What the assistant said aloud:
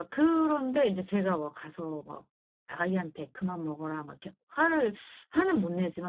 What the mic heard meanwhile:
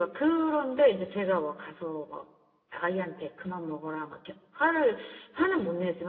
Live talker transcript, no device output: none

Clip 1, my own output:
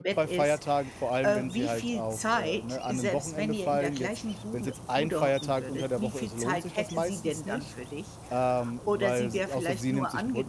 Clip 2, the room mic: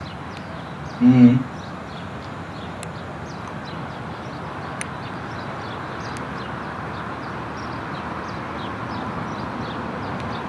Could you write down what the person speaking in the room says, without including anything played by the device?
Mhm.

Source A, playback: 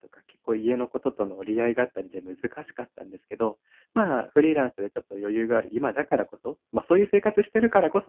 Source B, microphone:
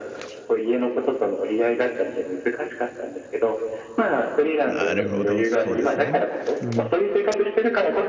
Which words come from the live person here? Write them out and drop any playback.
なるほど、そうですね。うん。

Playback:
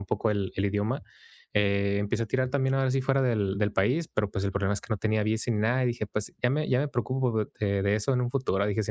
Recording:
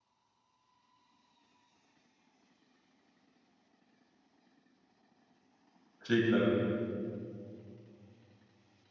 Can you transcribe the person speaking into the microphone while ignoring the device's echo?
Sí, claro.

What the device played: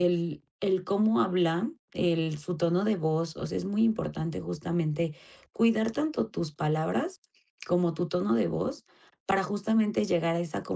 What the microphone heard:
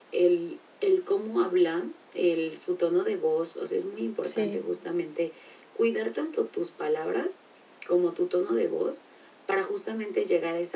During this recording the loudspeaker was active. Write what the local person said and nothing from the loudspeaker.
Sí.

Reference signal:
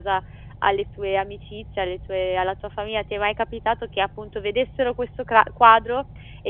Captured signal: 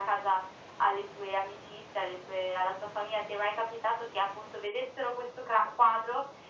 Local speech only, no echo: none

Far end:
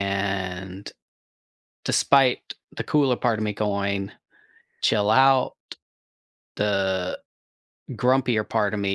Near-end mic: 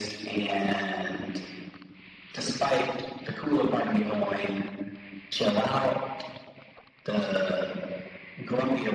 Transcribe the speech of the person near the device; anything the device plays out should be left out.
none

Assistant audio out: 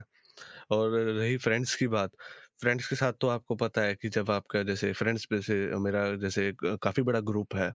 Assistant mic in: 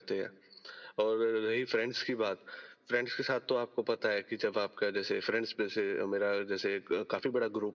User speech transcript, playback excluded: none

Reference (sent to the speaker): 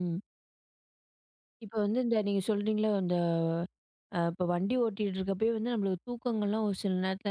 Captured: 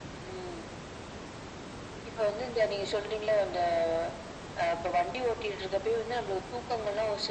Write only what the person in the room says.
none

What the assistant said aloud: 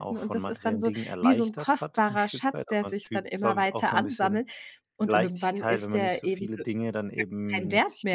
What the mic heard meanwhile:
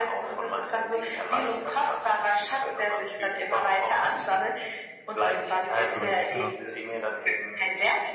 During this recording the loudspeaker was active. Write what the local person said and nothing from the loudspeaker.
Stimmt, ja.

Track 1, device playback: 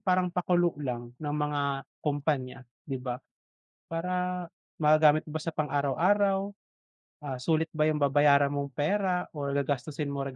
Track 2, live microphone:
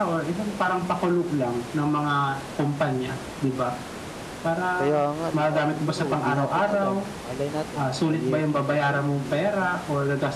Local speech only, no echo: kaya nga 'di ba, siguro 'di natin alam, malay natin mga year twenty thirty o ano,

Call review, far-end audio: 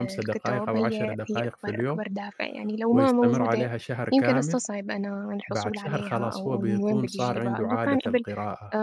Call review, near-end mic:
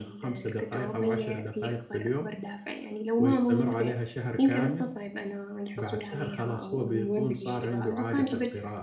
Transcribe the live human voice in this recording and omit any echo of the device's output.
none

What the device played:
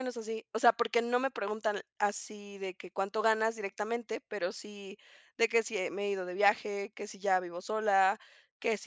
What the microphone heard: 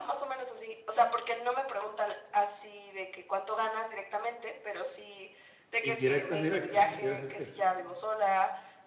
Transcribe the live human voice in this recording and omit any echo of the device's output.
Indirectas, directas, ¿quieres decir?

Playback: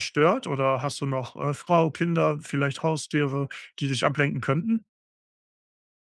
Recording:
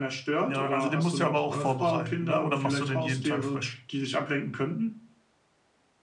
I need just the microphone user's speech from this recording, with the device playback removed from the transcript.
Ja, also den musst du aber auch vorbereiten, ne? Oder machst du den jeden Tag frisch?

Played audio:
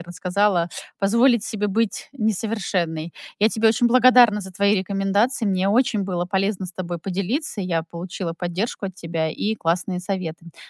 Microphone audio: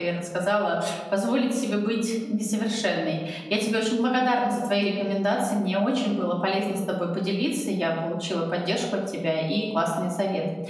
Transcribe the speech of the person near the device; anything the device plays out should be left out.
none

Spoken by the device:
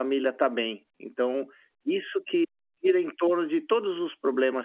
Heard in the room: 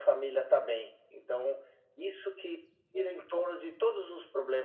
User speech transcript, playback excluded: none

